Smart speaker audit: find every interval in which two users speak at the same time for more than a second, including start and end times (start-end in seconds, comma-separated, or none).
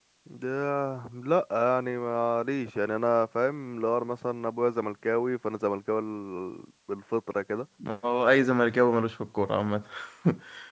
none